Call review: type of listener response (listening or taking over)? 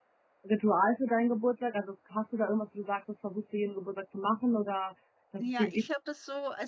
taking over